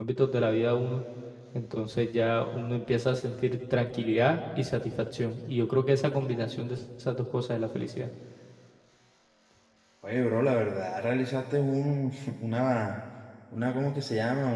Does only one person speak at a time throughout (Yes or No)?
Yes